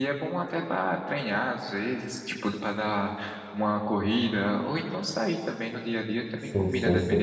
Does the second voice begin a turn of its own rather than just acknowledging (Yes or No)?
Yes